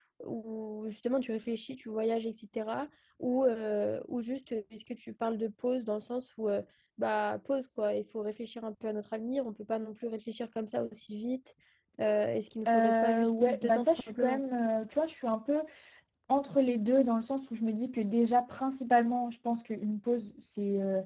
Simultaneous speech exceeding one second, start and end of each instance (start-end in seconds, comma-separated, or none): 12.7-14.4